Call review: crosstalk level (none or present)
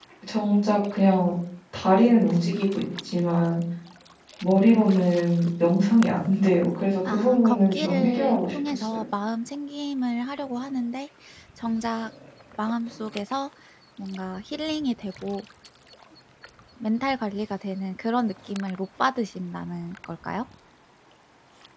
present